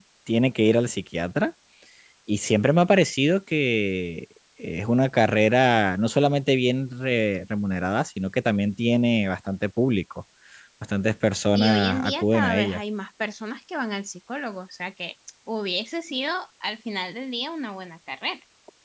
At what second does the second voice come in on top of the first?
11.5 s

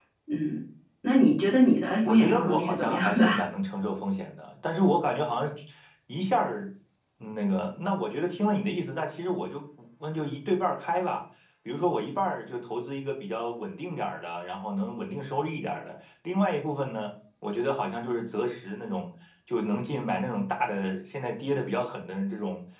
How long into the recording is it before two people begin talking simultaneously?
2.0 s

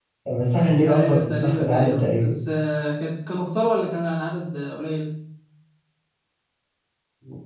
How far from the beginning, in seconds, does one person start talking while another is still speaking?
0.8 s

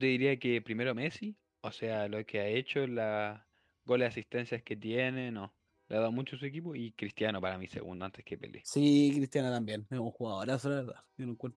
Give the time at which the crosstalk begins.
none

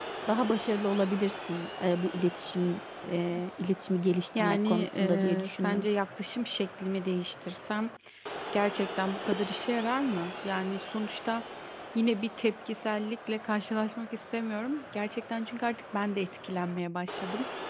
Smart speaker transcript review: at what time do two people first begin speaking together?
4.4 s

